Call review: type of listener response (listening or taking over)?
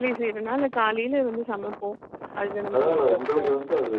taking over